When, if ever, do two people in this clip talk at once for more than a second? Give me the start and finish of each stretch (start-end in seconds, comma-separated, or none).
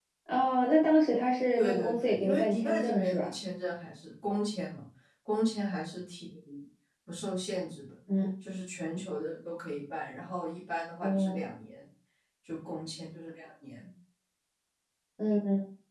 1.6-3.3